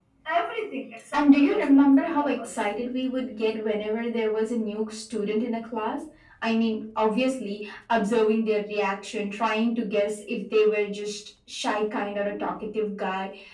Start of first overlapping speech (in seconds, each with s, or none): 1.1 s